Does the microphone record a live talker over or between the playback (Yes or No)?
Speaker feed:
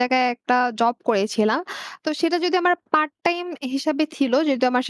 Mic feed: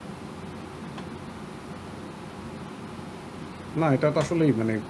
Yes